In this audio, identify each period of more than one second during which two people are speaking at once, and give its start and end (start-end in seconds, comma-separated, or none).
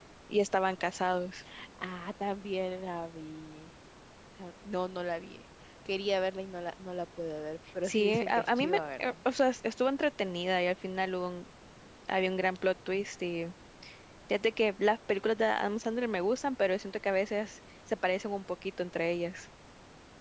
7.8-9.1